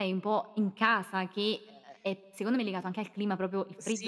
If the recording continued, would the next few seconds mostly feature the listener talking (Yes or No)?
Yes